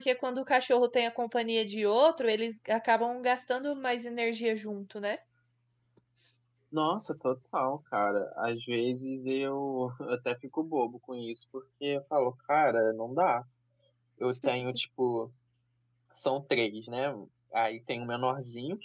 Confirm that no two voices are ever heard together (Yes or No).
Yes